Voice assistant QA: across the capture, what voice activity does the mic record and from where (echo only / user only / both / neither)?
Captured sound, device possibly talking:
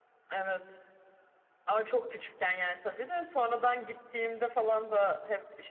echo only